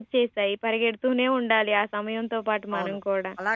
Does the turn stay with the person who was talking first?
No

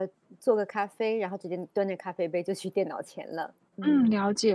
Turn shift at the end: Yes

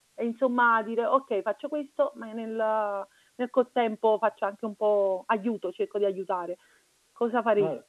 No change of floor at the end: No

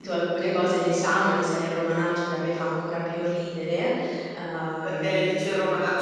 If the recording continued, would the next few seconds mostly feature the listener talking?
Yes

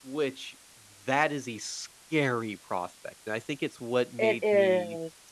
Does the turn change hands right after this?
No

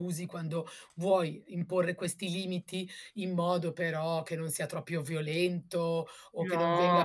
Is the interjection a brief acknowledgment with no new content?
Yes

